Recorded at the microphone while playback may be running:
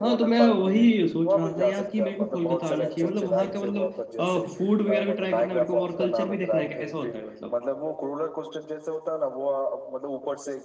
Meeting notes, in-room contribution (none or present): present